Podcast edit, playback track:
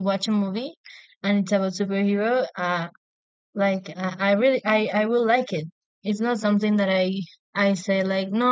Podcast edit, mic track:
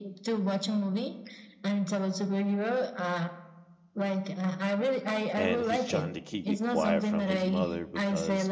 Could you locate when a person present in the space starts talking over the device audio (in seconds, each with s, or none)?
5.4 s